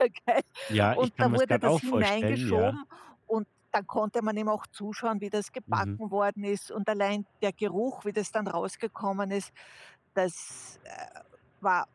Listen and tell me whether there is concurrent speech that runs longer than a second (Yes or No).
Yes